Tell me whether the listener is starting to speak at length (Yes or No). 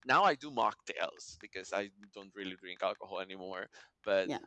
No